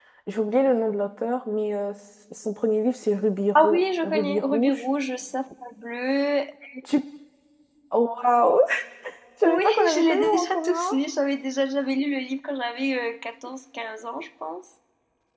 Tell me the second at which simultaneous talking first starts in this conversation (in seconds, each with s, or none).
3.6 s